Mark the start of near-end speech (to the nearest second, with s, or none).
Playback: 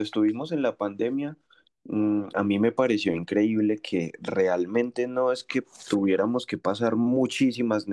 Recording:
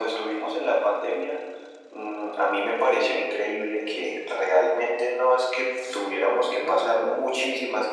6 s